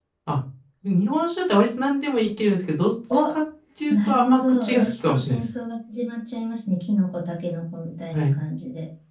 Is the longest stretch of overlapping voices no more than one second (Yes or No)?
No